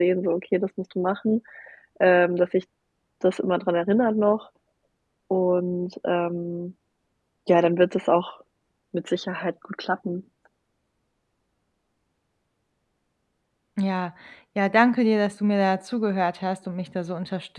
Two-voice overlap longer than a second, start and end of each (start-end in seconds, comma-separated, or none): none